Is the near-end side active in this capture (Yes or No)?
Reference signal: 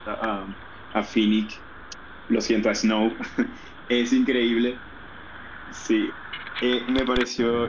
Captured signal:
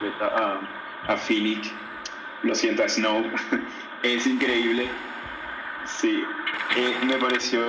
No